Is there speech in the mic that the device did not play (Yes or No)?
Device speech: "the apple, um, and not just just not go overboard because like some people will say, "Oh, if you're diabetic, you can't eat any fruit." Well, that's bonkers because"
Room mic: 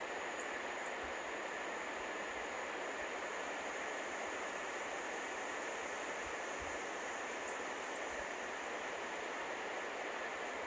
No